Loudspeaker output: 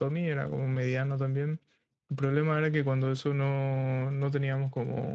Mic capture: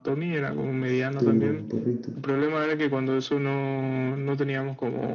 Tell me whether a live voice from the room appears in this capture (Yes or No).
Yes